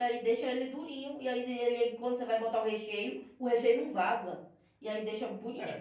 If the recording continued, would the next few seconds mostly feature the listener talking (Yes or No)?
Yes